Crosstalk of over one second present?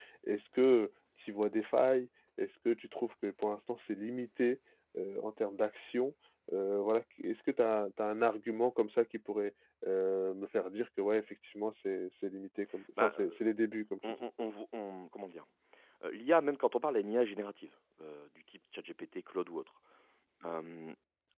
No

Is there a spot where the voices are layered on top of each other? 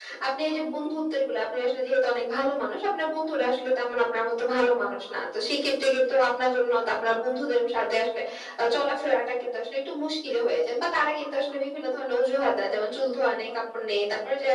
No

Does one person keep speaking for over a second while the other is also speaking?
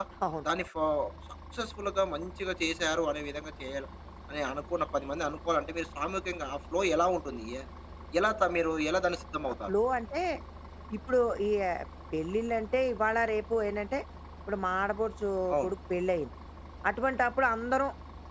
No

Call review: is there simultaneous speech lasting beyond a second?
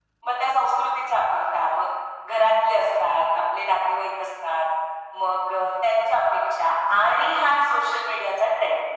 No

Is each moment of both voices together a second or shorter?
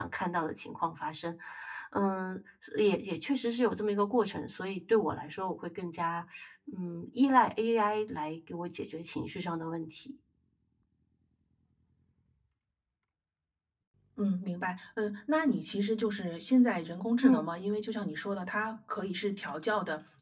Yes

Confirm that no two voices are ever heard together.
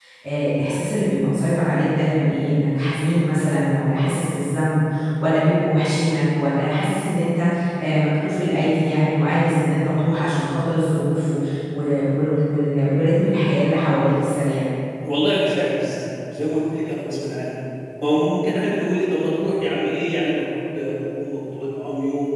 Yes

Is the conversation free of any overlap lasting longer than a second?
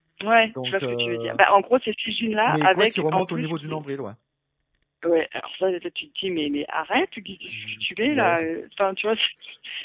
No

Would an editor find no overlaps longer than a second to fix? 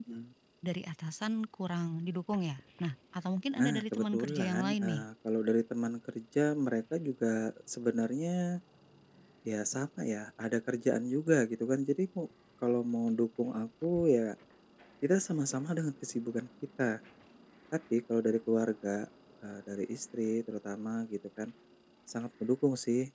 No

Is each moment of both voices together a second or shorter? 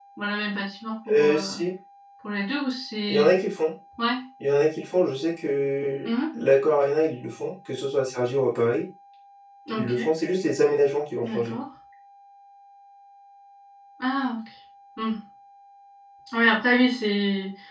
Yes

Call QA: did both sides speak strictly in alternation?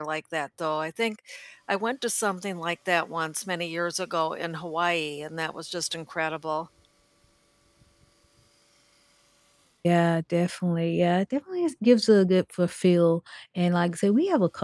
Yes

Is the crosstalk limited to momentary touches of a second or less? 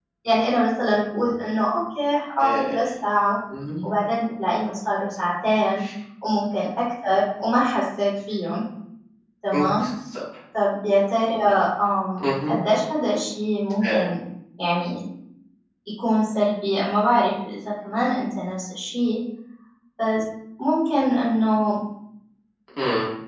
Yes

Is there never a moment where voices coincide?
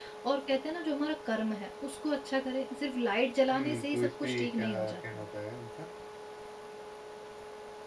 No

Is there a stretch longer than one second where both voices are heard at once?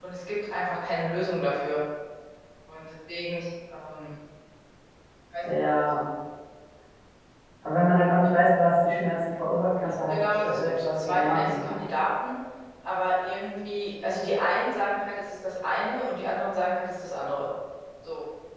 Yes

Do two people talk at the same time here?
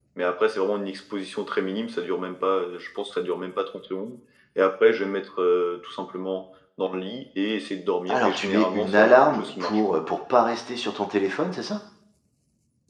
Yes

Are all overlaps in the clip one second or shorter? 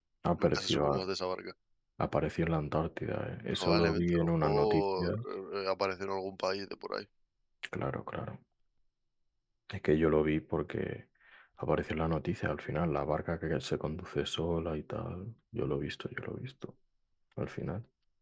No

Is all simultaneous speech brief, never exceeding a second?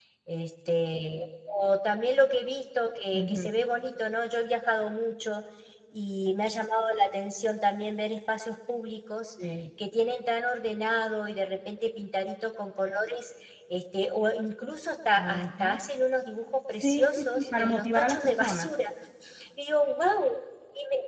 No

